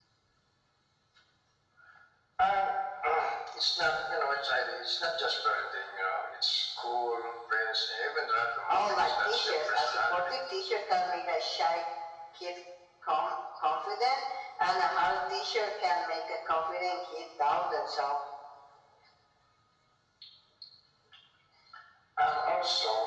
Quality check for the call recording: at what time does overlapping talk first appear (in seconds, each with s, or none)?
8.7 s